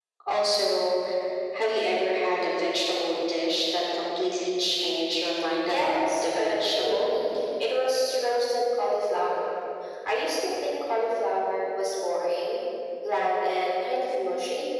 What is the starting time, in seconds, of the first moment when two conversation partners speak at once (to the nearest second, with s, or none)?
6 s